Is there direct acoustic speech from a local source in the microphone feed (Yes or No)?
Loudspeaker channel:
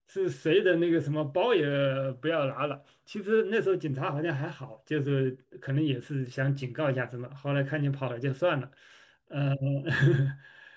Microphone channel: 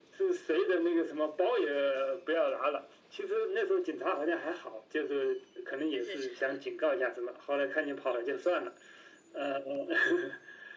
Yes